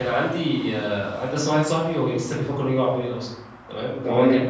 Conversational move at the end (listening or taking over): listening